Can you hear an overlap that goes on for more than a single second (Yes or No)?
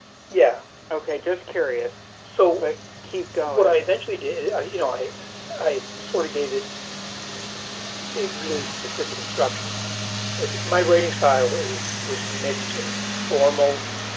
No